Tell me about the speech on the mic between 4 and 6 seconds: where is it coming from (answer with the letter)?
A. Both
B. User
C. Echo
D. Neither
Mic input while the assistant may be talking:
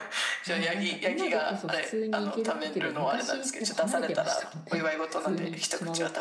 A